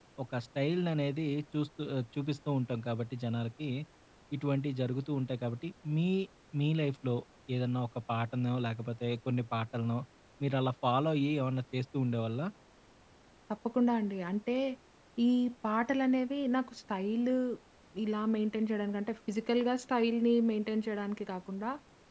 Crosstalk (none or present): none